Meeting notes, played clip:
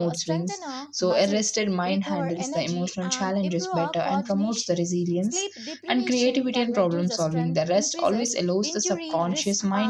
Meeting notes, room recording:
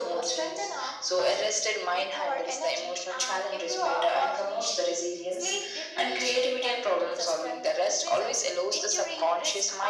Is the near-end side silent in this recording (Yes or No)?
Yes